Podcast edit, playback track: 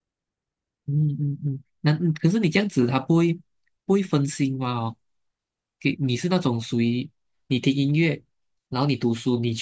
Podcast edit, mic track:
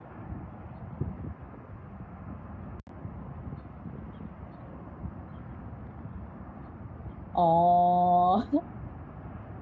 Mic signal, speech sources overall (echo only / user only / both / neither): user only